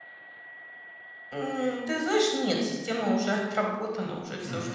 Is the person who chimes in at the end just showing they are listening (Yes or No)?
Yes